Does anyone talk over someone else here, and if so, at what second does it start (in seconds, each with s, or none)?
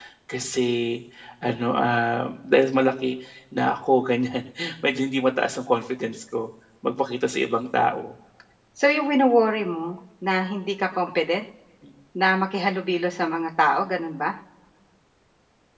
none